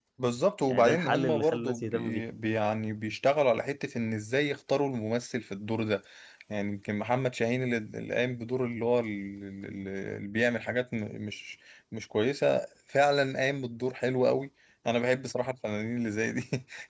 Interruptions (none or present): present